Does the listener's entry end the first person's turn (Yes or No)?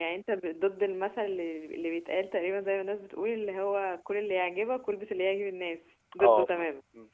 Yes